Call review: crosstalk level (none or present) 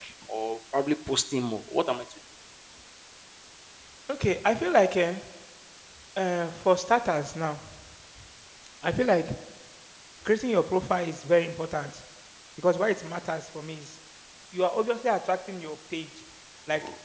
none